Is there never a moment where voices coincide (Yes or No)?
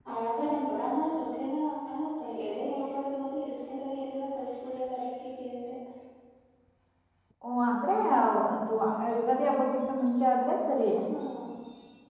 Yes